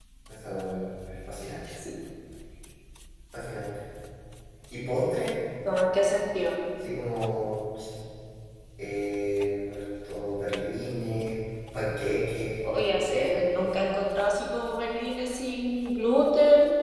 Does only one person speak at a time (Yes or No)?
Yes